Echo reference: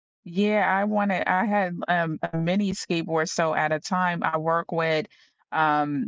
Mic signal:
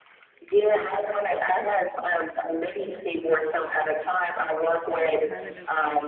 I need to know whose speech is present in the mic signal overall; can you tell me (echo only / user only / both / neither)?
both